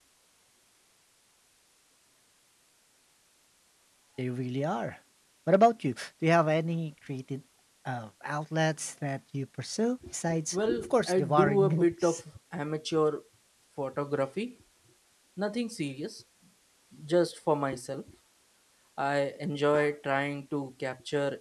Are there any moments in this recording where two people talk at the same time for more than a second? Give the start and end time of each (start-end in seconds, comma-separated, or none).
10.5-12.2